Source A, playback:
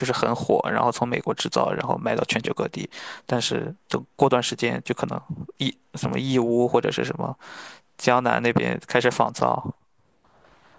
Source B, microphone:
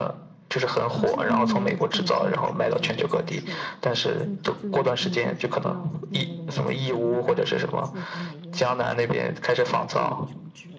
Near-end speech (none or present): present